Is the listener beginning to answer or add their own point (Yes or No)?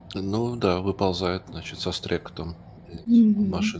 Yes